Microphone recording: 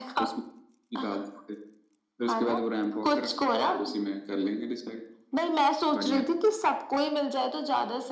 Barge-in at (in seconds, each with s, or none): none